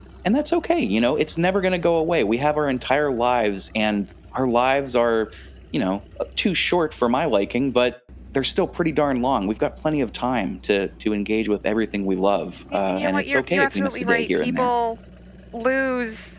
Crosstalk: present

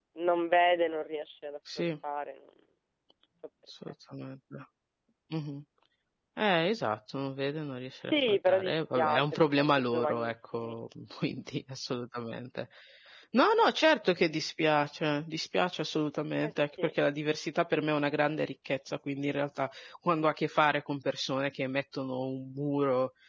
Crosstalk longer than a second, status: present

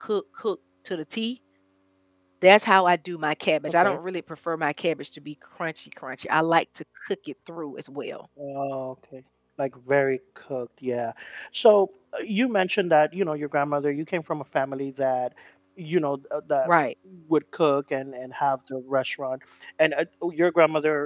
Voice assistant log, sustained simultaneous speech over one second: none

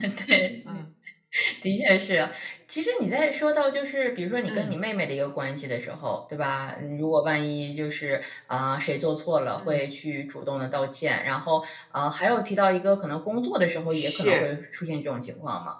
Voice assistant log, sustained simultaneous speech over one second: none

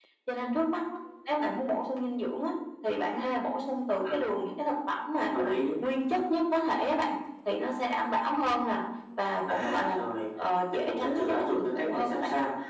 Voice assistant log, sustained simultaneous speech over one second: present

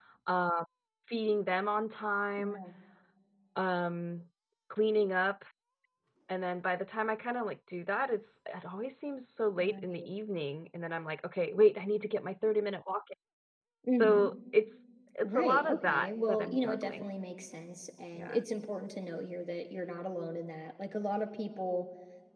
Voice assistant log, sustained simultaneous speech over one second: present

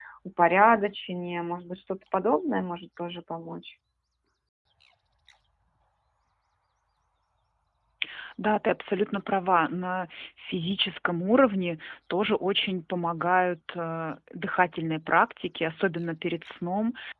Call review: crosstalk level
none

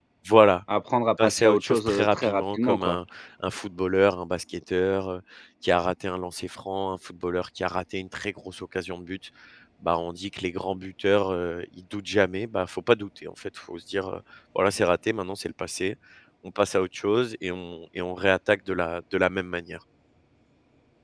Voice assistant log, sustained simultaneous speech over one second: present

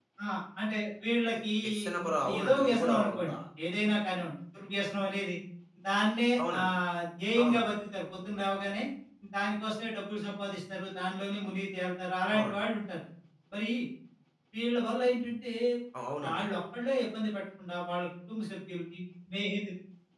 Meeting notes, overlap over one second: present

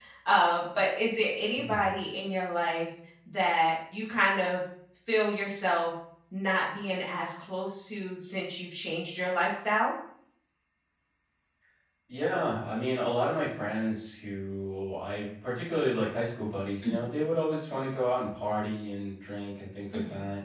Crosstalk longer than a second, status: none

